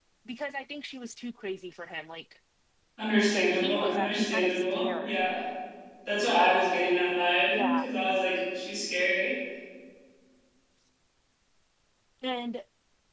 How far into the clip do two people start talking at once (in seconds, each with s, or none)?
3.3 s